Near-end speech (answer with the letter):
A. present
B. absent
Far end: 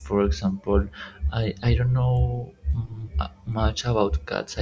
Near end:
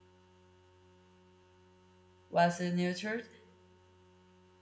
A